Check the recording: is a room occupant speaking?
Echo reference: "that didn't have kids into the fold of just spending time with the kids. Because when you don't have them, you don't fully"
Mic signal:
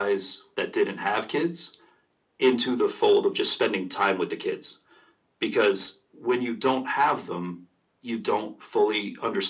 No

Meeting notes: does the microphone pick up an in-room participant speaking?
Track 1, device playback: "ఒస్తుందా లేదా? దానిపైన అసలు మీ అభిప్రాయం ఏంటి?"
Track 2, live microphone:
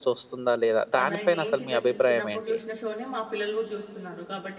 Yes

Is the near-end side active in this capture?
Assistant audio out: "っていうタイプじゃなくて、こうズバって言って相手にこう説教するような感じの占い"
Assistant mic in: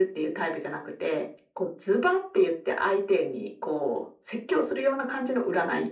No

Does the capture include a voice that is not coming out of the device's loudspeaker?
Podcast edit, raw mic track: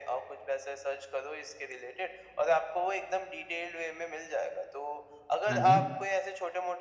Yes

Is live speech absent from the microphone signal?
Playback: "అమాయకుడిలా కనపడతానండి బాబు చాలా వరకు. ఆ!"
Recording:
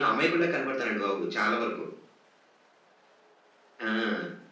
Yes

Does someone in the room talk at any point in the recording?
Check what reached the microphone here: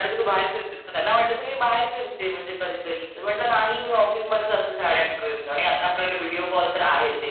No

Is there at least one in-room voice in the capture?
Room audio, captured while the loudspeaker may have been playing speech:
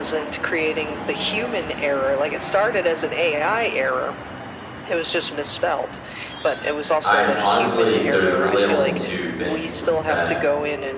Yes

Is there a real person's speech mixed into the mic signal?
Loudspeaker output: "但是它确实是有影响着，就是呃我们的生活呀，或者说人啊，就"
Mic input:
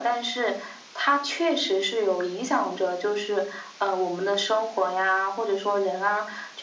No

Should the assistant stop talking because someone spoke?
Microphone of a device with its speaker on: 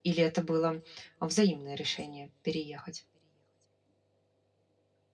Yes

